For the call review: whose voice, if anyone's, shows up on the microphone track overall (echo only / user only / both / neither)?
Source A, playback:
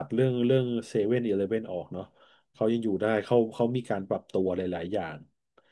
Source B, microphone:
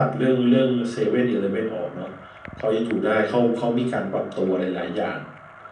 echo only